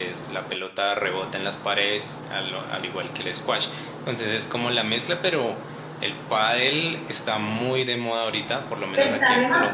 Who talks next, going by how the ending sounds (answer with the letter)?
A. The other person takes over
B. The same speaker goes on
A